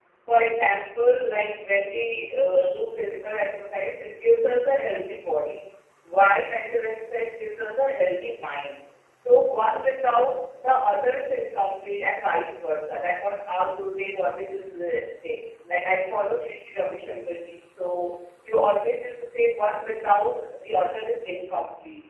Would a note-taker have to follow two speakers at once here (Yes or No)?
No